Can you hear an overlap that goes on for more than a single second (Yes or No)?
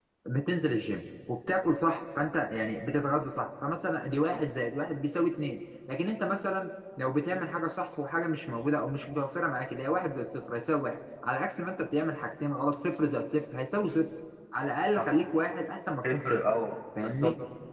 No